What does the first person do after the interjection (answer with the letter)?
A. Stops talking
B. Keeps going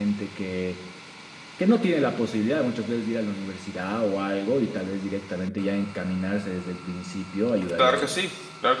A